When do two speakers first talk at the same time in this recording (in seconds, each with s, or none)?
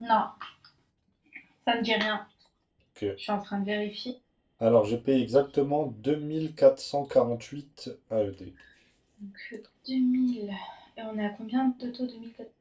none